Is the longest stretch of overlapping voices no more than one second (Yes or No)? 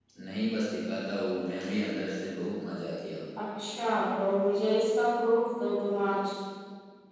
Yes